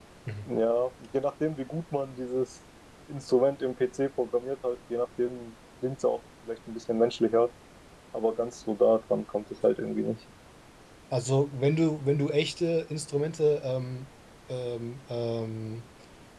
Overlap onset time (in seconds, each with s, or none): none